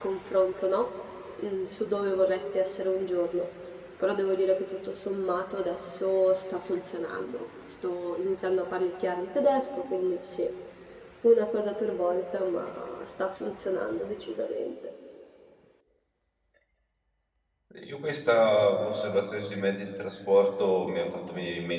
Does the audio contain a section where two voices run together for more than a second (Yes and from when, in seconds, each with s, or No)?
No